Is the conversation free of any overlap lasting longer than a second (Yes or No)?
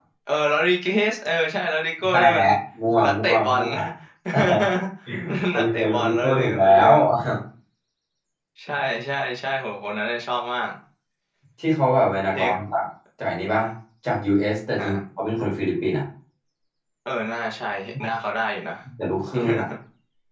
No